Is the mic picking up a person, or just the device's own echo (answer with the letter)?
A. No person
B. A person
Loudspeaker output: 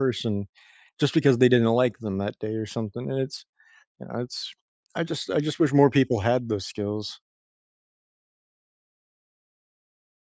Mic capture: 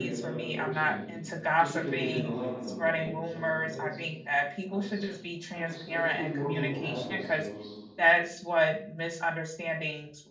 B